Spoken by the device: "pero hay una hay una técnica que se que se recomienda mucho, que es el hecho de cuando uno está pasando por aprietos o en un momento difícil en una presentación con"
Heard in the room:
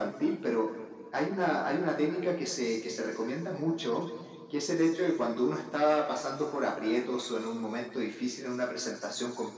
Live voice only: none

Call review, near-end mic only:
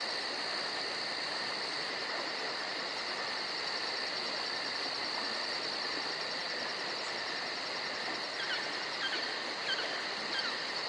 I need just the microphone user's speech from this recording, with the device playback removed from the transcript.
none

